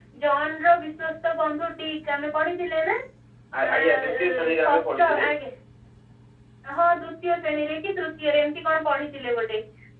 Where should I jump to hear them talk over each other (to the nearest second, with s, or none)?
4 s